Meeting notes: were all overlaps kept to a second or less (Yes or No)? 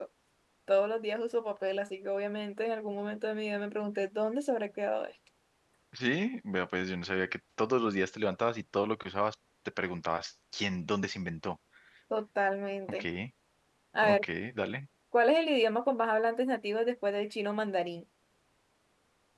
Yes